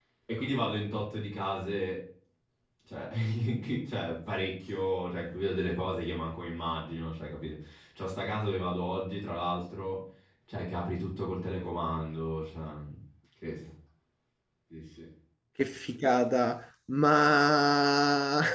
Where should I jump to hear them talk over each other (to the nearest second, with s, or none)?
none